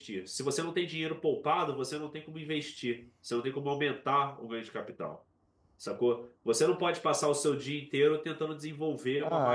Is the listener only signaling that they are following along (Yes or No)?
No